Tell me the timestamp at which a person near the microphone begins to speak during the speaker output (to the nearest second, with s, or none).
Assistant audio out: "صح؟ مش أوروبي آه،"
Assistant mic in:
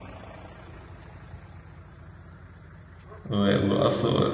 3 s